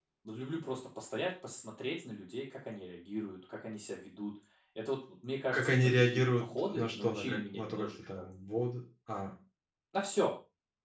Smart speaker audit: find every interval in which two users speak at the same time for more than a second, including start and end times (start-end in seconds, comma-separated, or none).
5.5-8.2